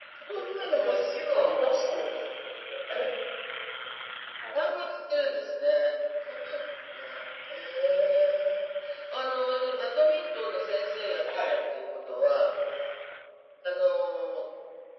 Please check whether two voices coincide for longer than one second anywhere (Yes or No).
No